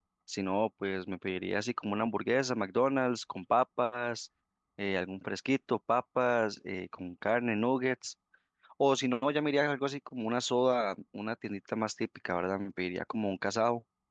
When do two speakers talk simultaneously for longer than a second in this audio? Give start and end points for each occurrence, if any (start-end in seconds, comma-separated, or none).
none